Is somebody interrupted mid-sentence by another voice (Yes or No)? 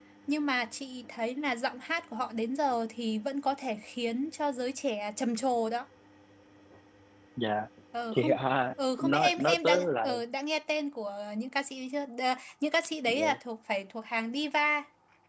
Yes